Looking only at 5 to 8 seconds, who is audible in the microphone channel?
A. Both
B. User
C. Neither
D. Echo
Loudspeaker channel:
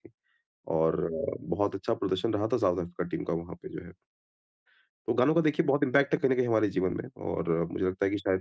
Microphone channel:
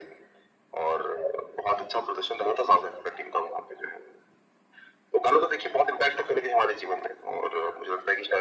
D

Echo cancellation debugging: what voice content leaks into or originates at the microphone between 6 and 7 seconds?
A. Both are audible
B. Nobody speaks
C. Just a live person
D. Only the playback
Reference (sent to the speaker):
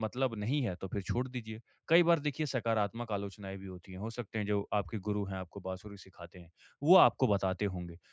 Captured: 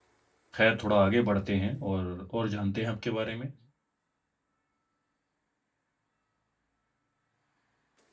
B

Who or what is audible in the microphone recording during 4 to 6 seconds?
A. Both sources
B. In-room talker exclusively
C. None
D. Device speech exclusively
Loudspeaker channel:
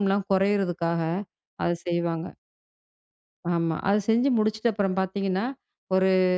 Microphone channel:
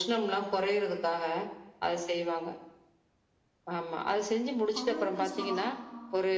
A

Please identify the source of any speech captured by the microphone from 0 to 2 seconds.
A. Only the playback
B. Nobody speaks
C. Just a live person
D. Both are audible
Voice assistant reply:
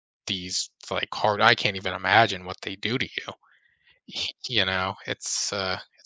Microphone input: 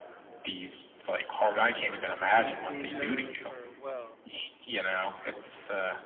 D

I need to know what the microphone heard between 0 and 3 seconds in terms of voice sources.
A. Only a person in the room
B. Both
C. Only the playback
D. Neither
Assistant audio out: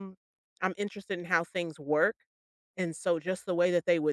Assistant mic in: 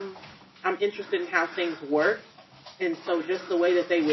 C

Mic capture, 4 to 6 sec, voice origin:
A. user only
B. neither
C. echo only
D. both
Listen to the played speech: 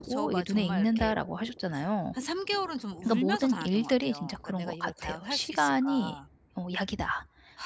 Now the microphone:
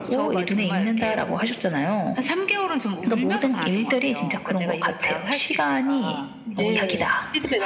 C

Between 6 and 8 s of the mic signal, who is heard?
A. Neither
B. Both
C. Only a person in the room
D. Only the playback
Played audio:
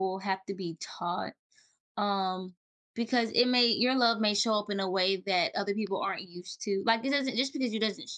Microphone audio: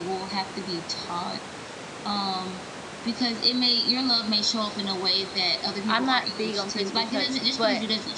B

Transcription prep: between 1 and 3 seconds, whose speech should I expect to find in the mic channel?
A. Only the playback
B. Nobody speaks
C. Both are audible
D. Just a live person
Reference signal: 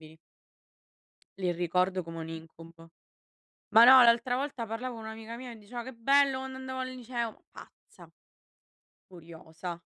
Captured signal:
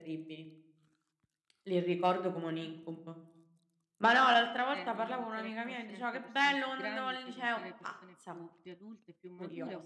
A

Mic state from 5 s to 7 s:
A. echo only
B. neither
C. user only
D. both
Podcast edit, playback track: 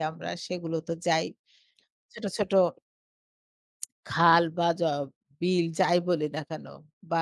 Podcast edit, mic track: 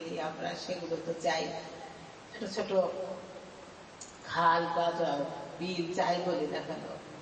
A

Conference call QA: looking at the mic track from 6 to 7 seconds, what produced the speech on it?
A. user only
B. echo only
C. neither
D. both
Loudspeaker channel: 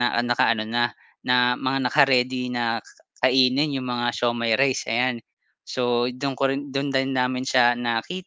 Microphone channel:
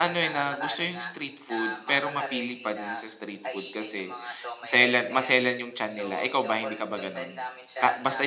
D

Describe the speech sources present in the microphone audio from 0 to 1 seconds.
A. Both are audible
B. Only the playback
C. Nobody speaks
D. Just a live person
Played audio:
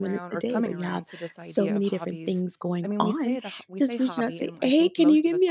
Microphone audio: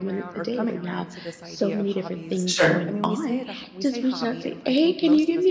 B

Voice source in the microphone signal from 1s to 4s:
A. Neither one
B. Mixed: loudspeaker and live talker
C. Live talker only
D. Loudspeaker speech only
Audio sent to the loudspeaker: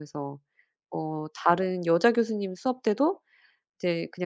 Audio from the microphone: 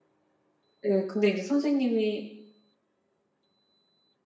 C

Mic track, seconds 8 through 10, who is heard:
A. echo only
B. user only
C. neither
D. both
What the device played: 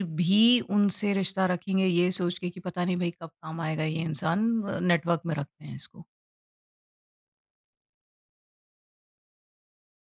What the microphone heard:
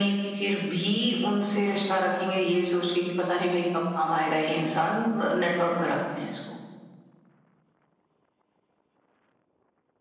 C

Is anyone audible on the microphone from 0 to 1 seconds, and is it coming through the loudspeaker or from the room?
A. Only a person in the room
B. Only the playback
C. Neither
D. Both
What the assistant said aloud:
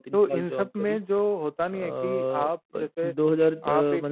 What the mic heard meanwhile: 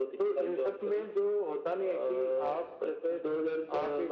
B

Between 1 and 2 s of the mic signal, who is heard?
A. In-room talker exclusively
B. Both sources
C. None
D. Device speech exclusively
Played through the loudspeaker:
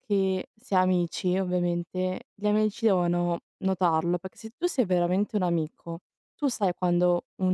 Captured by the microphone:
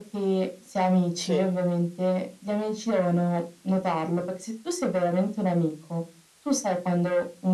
B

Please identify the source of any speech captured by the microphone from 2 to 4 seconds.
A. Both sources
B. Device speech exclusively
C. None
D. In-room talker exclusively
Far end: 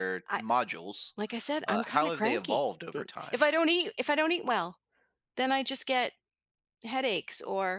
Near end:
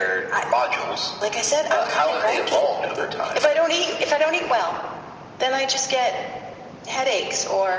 B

